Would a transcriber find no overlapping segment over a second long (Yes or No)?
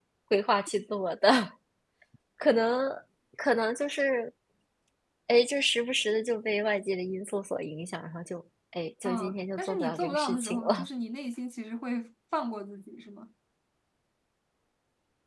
No